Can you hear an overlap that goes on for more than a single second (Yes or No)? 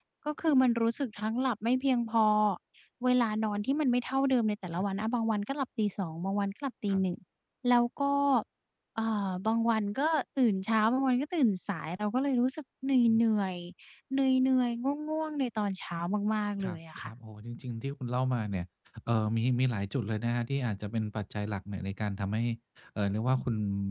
No